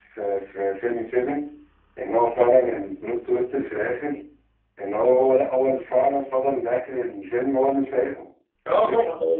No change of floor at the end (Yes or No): No